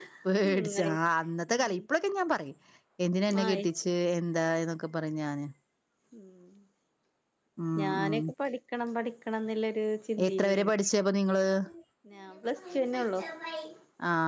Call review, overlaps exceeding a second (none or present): none